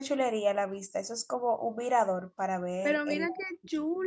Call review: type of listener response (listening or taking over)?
taking over